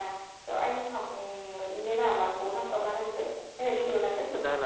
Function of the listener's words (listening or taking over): taking over